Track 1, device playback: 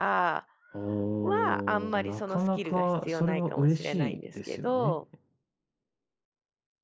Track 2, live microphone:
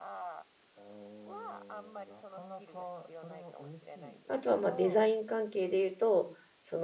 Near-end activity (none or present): present